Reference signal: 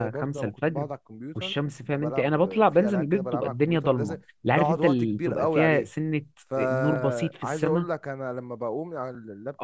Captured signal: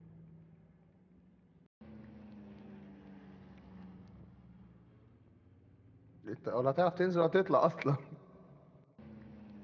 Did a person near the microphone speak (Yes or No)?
Yes